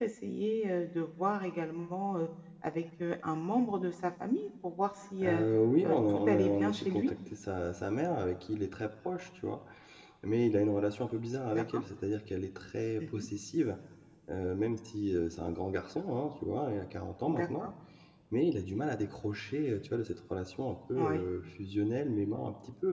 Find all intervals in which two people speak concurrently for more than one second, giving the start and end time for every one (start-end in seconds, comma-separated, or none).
5.8-7.1